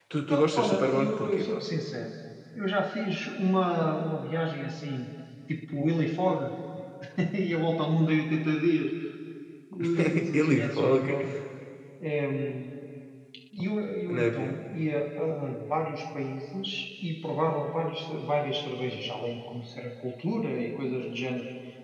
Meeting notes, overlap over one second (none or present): present